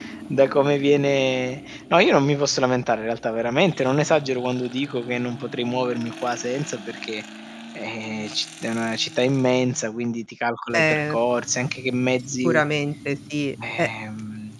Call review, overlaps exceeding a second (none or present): none